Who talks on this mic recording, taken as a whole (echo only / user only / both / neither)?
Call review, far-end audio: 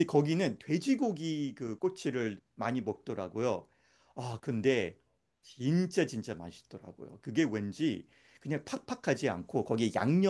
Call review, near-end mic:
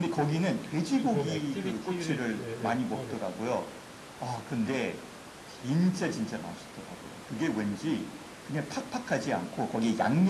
both